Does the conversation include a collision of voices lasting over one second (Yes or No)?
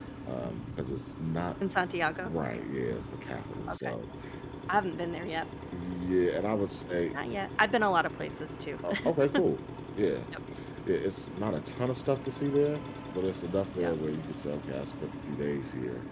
No